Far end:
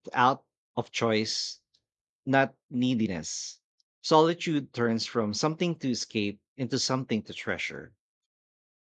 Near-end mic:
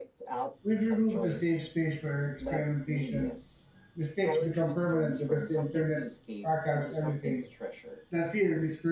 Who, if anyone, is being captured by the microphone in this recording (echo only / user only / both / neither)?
both